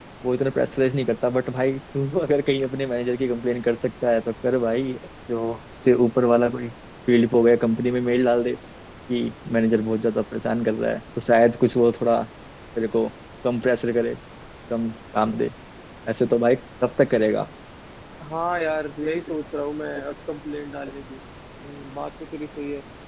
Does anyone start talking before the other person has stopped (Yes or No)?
No